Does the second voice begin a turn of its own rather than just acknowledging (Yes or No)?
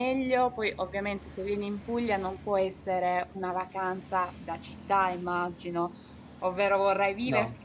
No